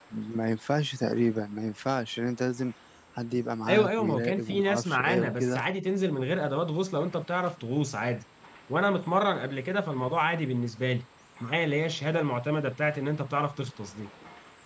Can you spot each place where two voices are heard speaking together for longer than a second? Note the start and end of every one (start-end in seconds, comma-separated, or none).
3.7-5.6